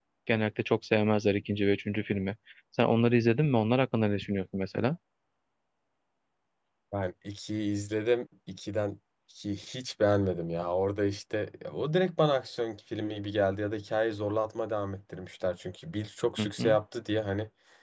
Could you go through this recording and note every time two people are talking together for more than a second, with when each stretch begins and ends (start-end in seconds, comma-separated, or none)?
none